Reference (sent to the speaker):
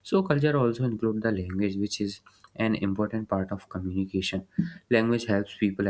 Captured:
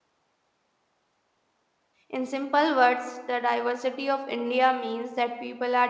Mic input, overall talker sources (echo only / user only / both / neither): user only